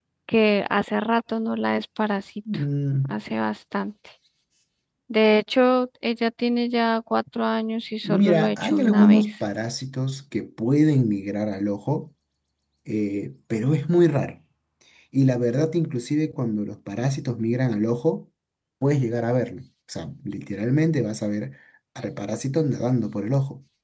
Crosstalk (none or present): present